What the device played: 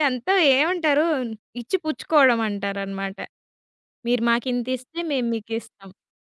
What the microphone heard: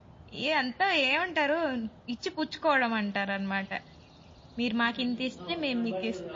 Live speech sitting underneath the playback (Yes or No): Yes